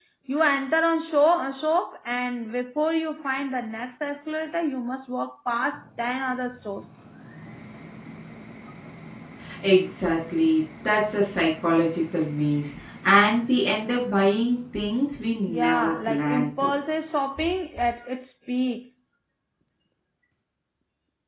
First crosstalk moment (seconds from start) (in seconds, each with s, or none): 15.5 s